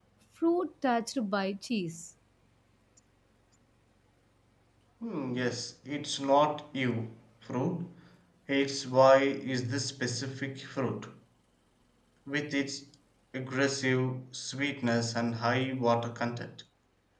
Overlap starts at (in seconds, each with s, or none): none